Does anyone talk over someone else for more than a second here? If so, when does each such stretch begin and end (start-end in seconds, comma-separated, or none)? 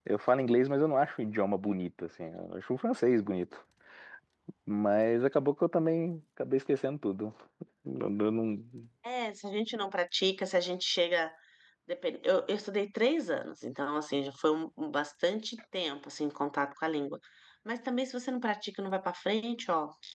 none